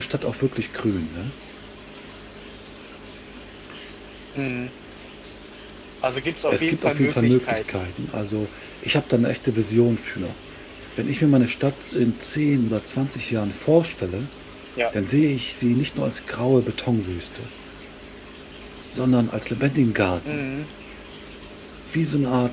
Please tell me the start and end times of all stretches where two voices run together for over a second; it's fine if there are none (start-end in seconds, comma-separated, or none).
6.5-7.8